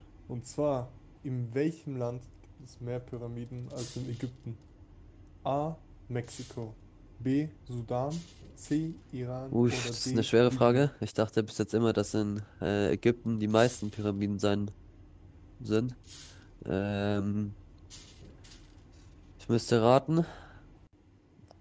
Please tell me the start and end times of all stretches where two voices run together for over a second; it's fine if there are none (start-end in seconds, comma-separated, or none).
9.5-10.9